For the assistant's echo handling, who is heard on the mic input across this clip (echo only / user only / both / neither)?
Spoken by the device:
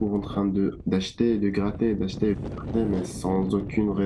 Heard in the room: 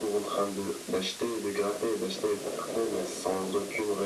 echo only